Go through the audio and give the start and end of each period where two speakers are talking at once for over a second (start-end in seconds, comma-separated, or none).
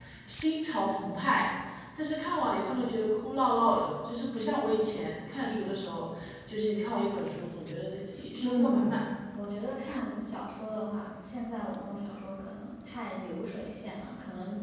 none